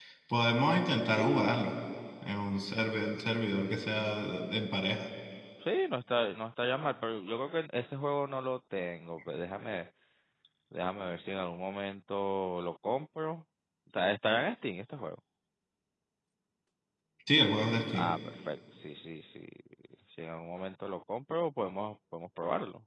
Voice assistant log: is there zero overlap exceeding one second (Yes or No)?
Yes